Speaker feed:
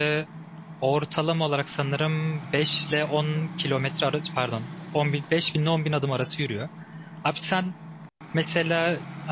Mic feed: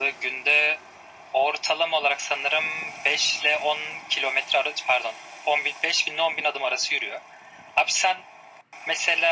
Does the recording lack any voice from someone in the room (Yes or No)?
Yes